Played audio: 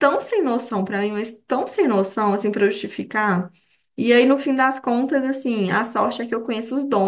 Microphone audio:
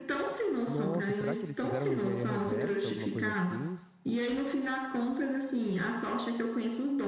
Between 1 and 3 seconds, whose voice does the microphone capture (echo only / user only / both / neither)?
both